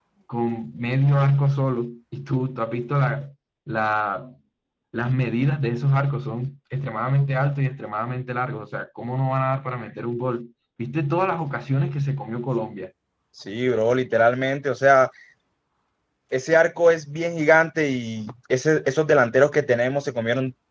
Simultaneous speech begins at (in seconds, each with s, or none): none